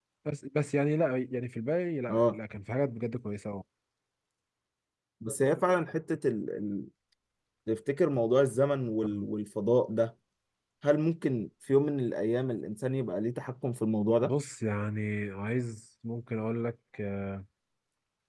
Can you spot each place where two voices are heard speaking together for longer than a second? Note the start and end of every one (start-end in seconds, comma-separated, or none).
none